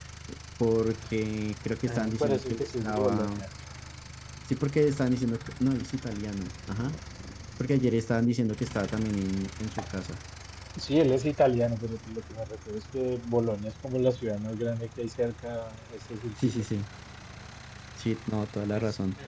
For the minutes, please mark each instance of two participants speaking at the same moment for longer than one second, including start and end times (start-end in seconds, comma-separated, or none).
1.9-3.4